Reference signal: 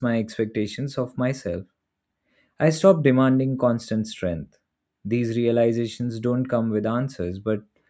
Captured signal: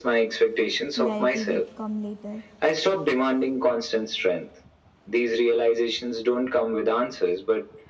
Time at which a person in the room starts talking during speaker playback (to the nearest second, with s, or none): 1 s